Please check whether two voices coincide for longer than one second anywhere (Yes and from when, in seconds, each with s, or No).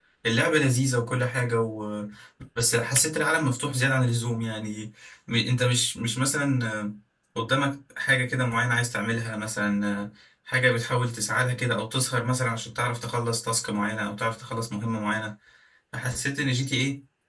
No